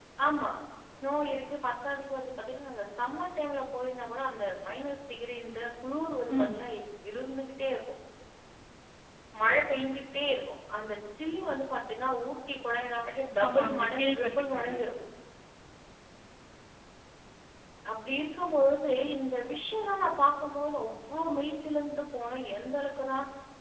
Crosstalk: present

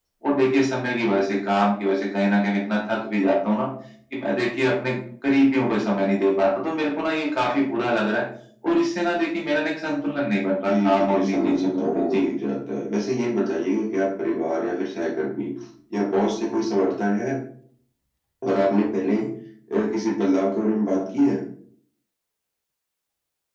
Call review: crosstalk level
present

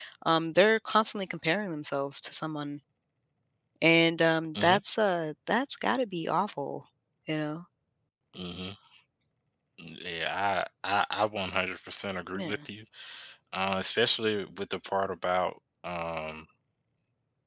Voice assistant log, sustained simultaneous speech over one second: none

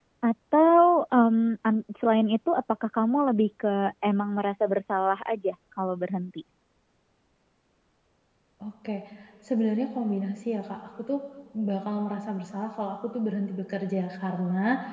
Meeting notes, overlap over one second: none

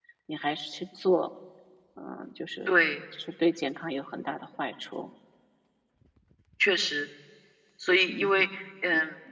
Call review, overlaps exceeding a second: none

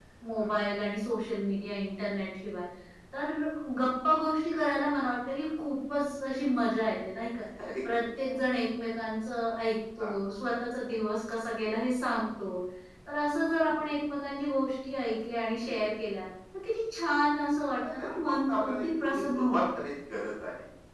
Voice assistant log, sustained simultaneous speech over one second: present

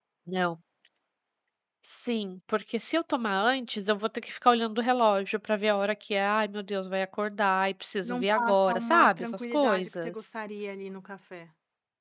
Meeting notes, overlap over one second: present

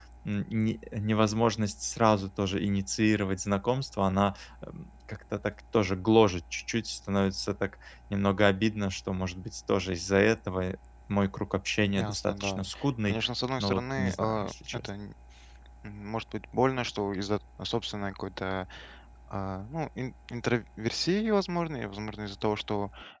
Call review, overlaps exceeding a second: present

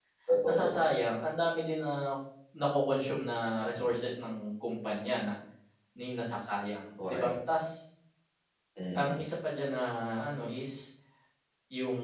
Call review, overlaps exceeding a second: none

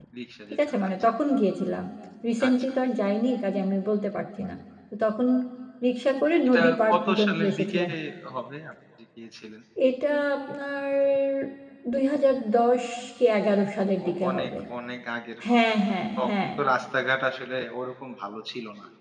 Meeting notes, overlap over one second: present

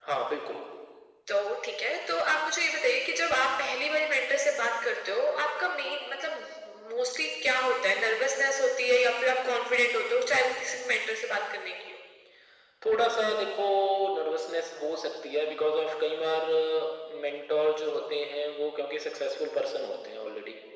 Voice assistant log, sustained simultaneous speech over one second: none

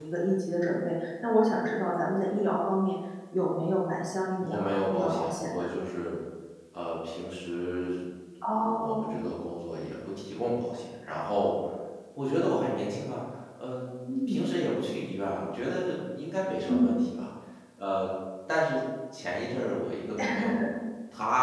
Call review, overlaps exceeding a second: present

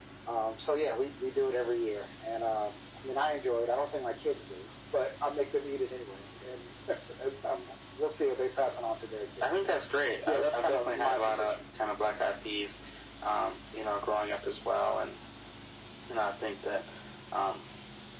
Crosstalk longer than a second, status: present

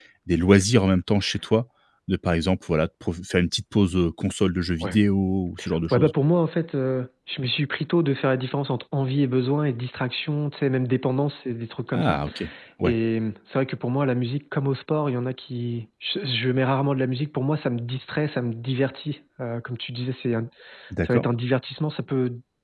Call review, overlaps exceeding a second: none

